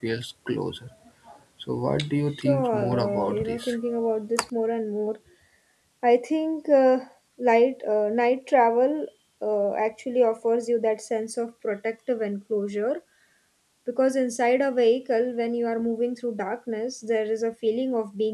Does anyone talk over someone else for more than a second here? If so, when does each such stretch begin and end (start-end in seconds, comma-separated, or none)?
2.4-3.8